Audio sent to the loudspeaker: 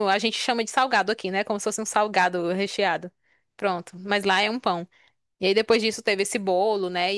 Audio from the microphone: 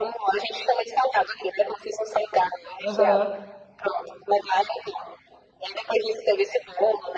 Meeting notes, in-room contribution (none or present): present